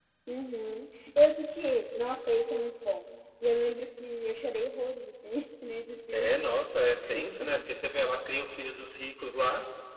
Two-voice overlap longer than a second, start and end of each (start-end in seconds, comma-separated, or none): none